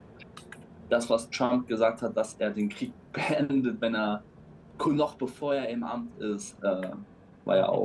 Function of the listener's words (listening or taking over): taking over